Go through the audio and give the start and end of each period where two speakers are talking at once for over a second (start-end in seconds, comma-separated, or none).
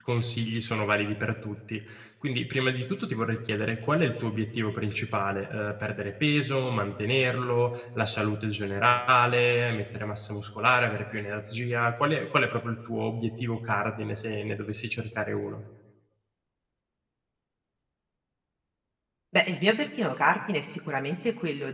none